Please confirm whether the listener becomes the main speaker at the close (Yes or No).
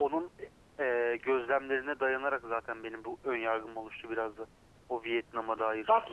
Yes